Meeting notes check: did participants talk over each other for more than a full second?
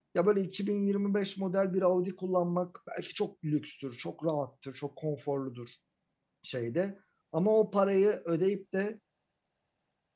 No

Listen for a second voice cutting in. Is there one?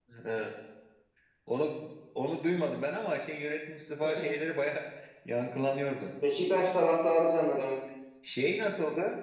No

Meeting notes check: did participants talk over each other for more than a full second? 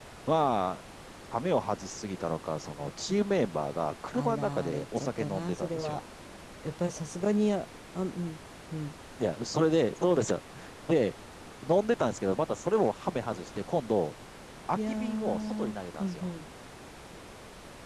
Yes, from 4.1 s

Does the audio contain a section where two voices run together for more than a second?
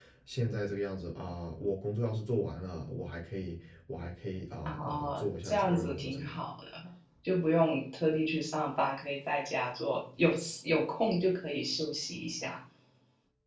Yes, from 4.6 s

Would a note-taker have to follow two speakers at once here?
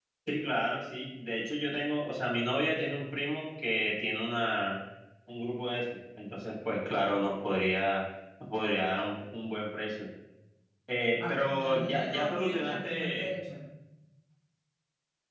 Yes, from 11.3 s

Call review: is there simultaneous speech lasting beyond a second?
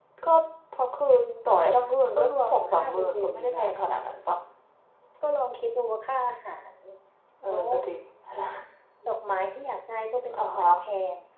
Yes, from 2.2 s

